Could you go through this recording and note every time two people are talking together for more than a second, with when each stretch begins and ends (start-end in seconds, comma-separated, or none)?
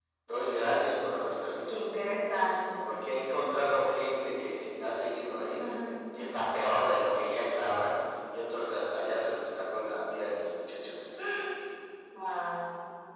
none